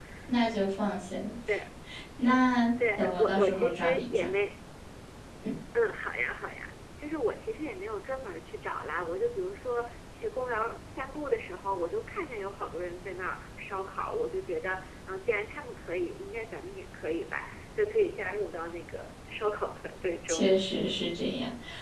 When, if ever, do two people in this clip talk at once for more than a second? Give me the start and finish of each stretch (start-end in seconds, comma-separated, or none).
3.0-4.3